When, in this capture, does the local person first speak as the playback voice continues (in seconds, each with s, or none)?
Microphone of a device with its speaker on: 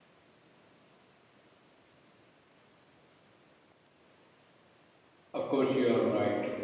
5.3 s